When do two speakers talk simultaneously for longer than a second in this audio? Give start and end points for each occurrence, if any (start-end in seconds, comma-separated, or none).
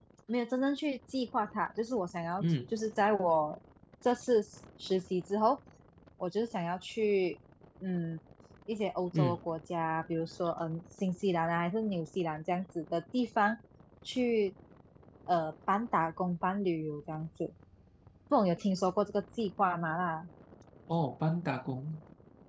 none